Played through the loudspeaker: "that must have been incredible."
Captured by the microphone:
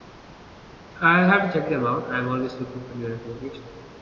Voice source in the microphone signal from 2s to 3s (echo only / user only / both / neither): user only